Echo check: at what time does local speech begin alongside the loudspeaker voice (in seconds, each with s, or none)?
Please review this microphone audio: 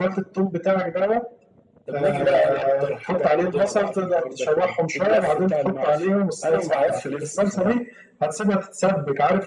none